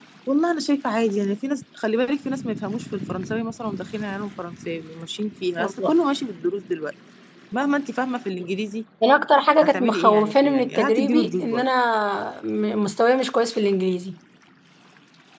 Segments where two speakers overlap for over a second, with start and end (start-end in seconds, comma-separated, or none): 9.7-11.7